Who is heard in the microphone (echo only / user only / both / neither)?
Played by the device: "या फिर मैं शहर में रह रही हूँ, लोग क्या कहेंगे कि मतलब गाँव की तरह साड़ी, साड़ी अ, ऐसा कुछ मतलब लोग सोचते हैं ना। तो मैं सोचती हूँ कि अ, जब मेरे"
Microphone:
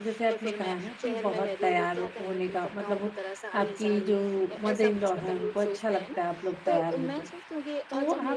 both